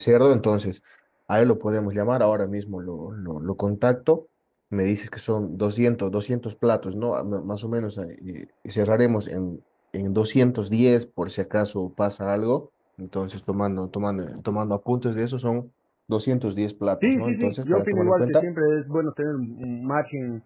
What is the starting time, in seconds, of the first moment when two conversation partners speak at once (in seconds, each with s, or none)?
17.0 s